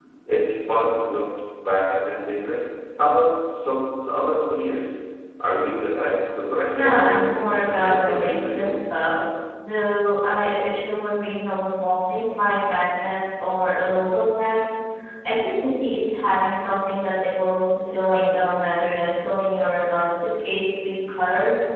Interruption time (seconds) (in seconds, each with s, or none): 6.7 s